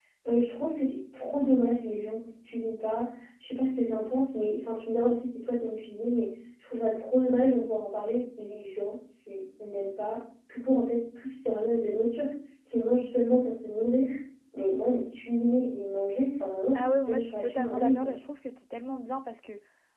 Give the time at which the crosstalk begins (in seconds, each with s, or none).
16.8 s